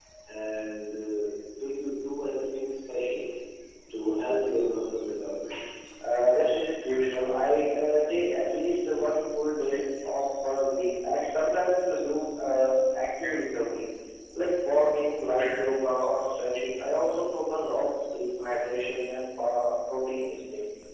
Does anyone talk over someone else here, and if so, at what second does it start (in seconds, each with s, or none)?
none